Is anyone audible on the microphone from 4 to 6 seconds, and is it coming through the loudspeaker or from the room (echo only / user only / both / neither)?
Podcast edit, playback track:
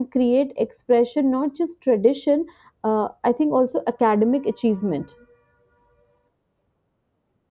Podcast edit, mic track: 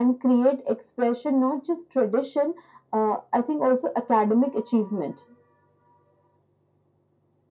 echo only